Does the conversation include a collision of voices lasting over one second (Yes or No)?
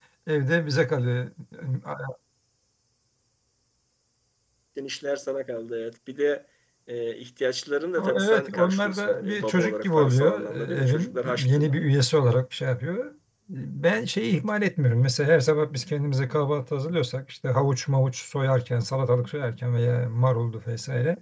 Yes